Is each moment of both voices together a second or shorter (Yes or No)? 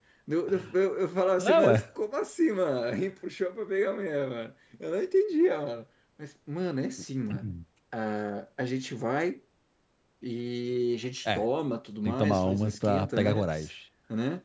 No